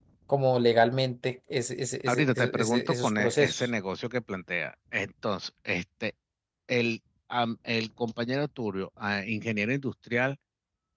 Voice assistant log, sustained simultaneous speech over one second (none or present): present